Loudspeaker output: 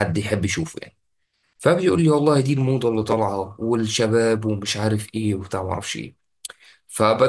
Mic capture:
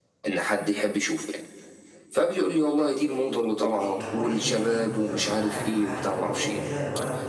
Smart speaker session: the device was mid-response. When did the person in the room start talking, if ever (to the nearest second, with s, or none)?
4 s